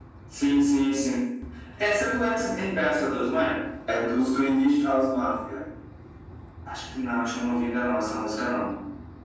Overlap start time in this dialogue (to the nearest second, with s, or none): none